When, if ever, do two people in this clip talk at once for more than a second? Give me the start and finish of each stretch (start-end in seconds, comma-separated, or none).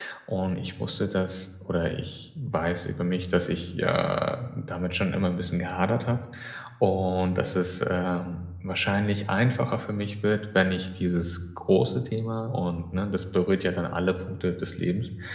none